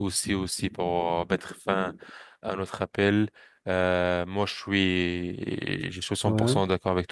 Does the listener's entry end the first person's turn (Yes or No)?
No